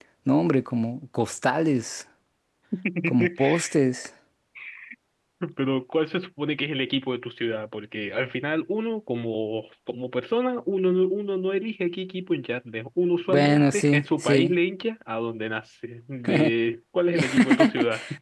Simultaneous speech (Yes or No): Yes